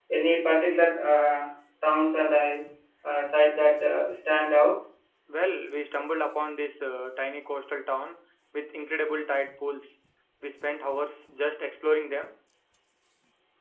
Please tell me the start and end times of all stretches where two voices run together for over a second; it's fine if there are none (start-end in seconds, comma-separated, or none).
none